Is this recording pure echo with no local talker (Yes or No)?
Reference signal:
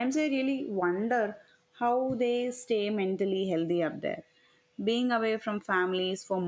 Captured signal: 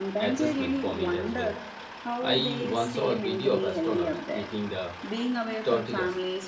No